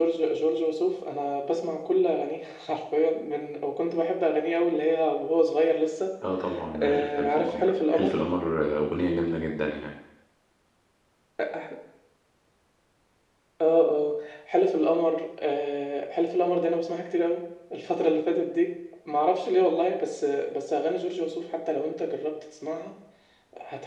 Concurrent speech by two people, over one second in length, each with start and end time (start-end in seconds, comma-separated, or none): 6.8-8.2